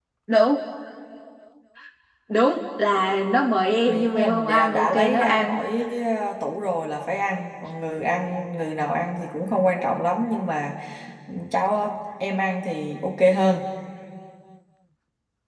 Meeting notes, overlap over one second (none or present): present